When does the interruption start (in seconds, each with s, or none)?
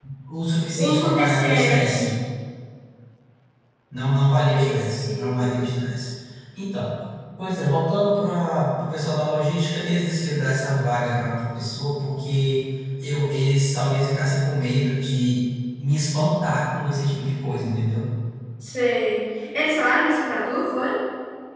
0.8 s